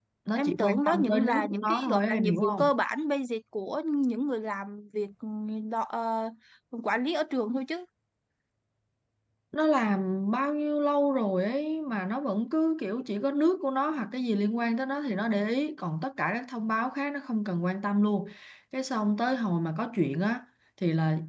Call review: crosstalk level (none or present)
present